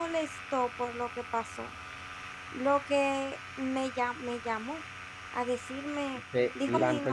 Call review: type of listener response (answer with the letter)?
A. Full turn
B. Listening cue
A